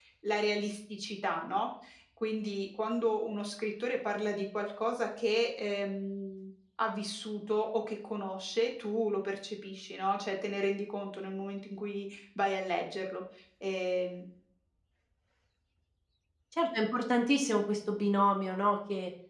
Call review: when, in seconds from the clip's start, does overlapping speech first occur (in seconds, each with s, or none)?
none